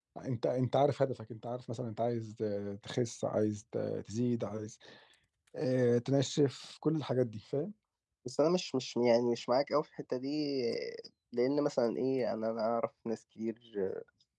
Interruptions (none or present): none